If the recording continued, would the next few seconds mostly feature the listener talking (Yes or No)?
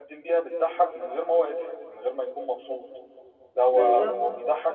No